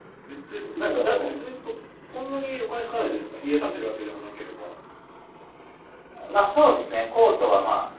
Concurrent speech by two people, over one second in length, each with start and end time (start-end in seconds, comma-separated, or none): none